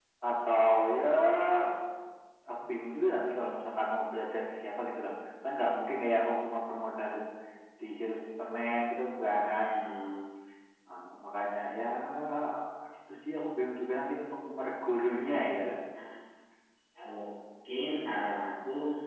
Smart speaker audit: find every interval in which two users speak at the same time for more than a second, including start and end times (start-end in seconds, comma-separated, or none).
none